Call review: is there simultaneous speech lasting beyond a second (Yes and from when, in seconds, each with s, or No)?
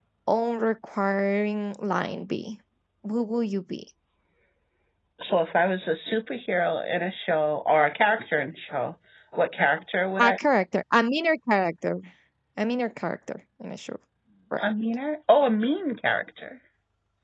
No